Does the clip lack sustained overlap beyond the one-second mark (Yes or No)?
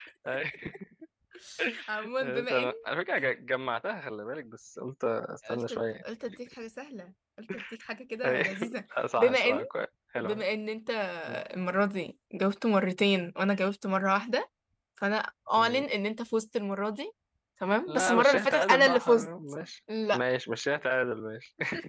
No